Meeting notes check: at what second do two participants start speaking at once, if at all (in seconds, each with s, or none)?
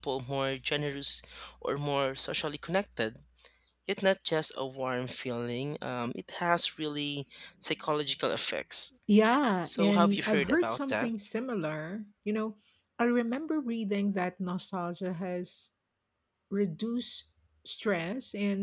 9.7 s